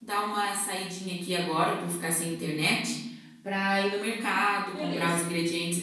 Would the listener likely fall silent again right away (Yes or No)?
Yes